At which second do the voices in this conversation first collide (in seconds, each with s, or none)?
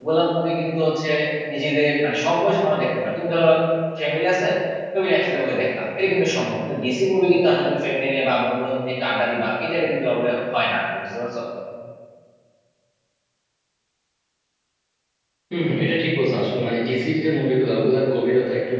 none